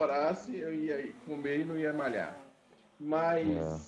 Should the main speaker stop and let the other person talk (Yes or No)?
No